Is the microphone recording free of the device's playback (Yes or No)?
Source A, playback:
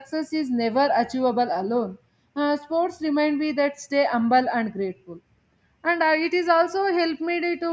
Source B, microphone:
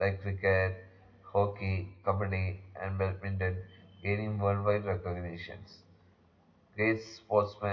Yes